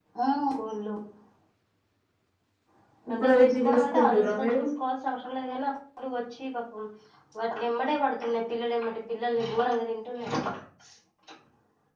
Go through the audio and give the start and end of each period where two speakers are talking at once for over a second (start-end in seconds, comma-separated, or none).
3.1-4.6